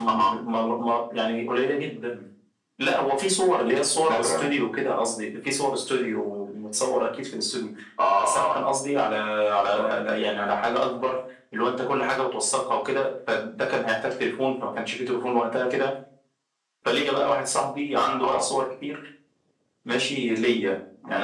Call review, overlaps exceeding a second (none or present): none